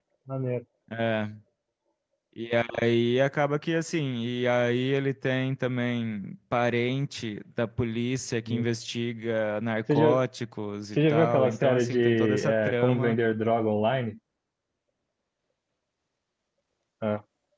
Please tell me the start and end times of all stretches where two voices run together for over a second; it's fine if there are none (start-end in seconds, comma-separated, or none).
11.0-13.2